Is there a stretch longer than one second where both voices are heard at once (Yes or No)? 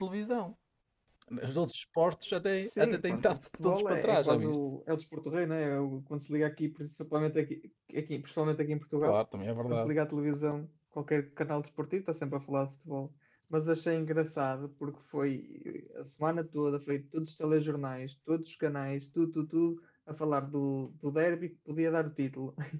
Yes